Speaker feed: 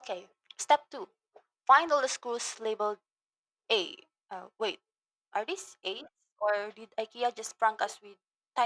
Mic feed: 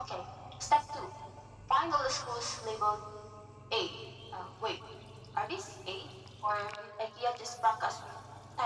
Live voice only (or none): none